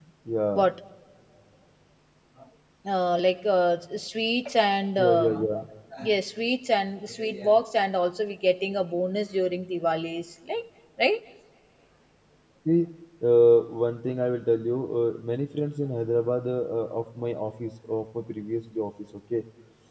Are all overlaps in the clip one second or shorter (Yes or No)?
Yes